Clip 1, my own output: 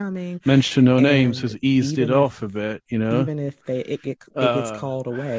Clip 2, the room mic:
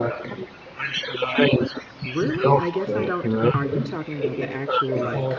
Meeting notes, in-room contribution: present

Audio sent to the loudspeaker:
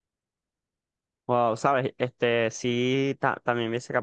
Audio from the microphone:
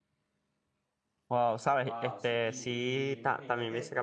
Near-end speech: present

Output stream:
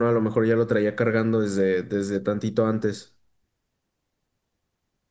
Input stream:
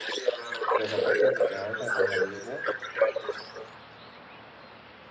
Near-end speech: present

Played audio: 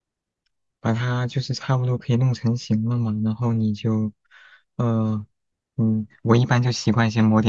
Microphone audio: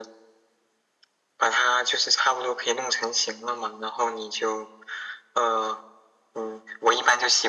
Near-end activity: none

